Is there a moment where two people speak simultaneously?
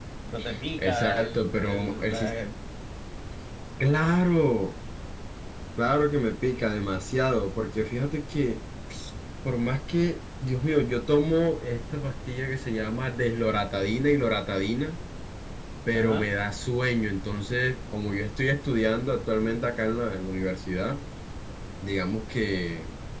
Yes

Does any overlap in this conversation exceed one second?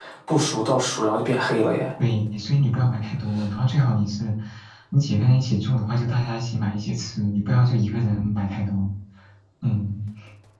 No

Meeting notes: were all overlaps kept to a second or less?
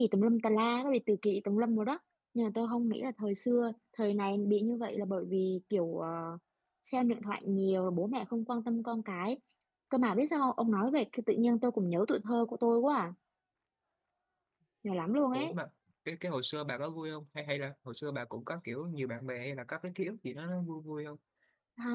Yes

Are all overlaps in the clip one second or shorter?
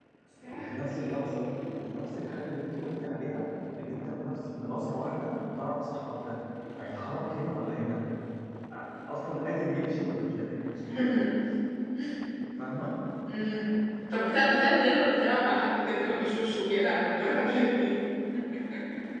Yes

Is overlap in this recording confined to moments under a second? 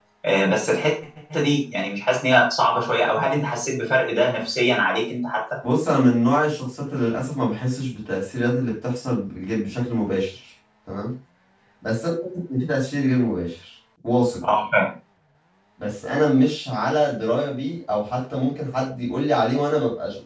Yes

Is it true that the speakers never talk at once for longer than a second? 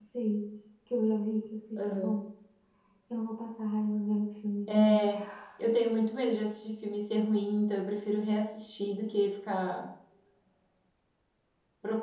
Yes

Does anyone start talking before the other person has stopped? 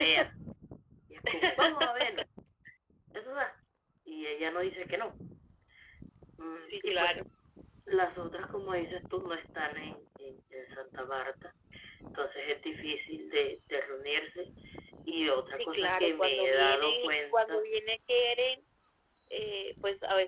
Yes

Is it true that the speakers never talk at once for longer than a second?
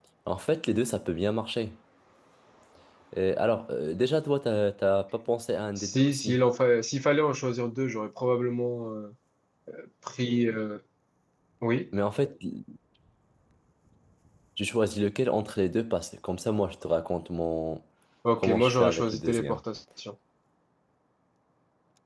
No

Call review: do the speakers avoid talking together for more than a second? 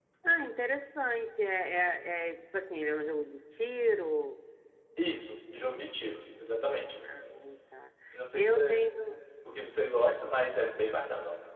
Yes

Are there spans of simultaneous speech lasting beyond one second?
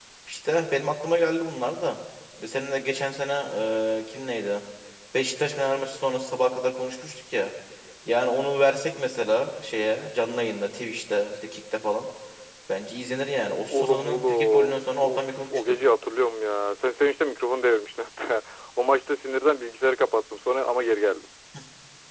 Yes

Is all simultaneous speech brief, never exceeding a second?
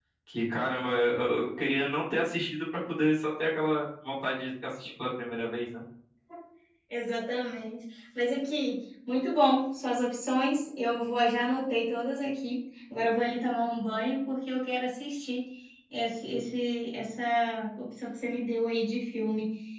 Yes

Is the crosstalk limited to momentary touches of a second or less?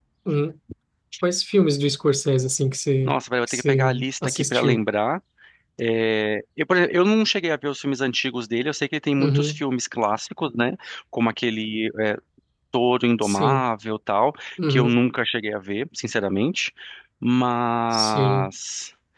No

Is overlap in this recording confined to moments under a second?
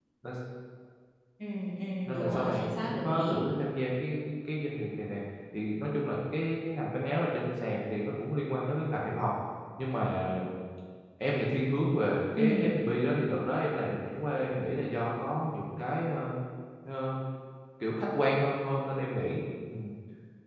No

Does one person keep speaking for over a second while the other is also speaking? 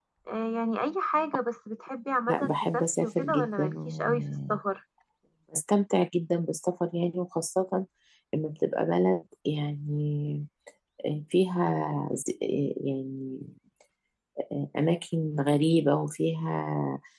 Yes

